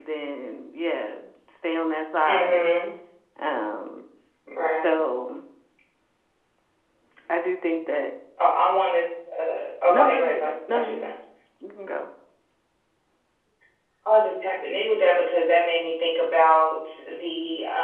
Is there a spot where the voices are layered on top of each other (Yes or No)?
Yes